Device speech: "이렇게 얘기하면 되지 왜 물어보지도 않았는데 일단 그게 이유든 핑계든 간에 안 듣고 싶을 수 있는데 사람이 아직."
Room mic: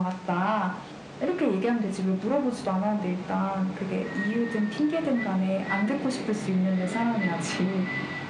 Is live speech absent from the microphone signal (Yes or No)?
Yes